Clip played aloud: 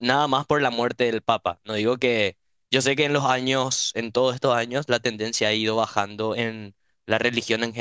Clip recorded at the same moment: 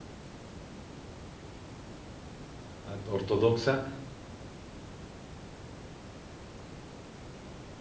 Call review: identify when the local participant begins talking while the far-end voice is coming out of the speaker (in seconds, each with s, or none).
2.8 s